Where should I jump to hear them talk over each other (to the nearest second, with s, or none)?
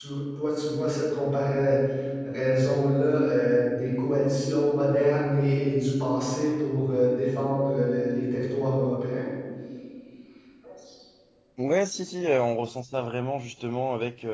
none